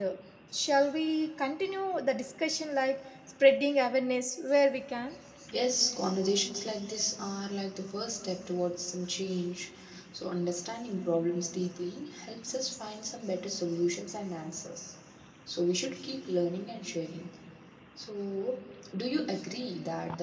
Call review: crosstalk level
none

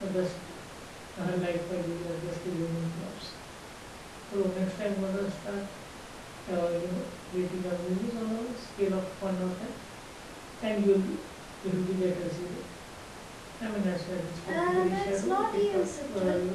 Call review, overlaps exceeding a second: present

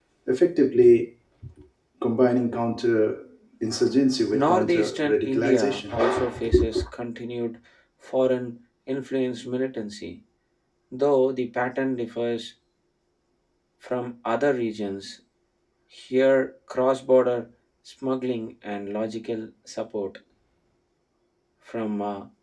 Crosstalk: present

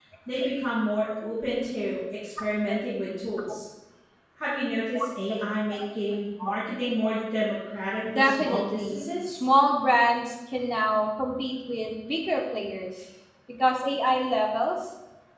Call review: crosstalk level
present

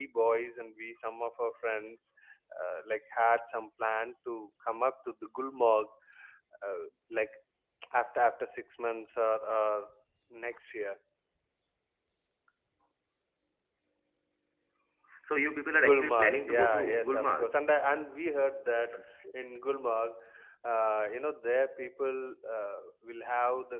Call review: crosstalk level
present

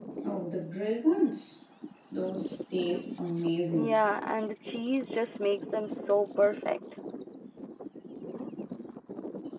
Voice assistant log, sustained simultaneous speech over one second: none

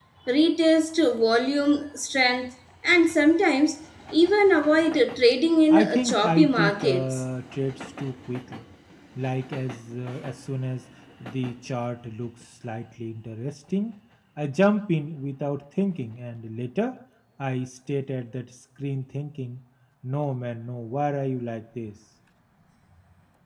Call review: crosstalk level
present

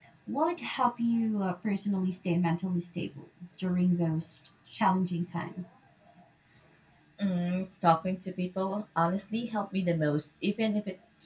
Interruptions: none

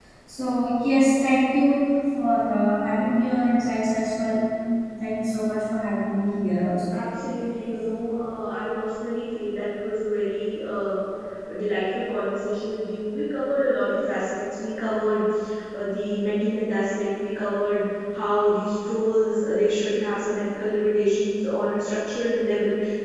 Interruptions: none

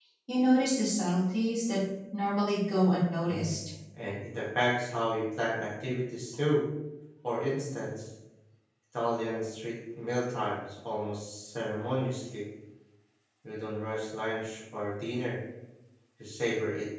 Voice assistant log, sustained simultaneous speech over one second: none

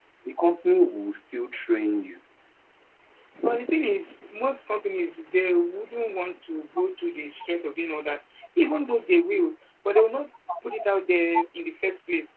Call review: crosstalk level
none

